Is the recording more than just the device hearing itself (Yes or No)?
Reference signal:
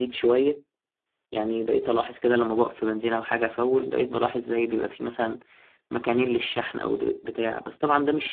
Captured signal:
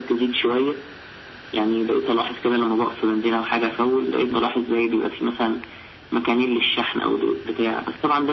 No